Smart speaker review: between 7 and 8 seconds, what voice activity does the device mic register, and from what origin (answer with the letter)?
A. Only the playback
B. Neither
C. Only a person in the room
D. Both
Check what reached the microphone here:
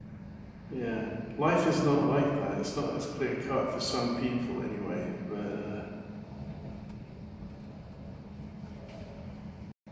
B